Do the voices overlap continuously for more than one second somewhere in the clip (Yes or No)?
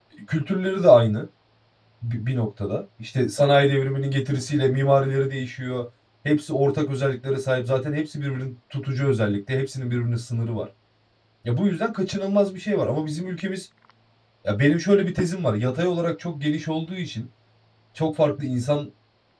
No